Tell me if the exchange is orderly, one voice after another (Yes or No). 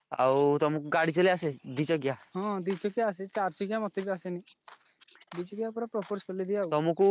Yes